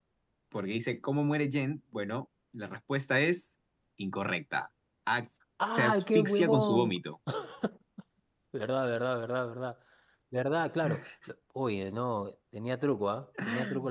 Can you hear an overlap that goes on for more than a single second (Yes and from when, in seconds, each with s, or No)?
Yes, from 5.7 s